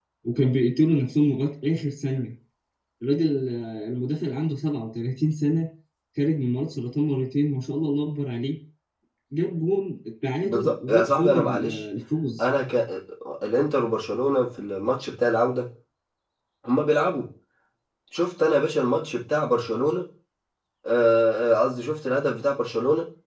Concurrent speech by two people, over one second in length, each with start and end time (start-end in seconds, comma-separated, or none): 10.4-11.8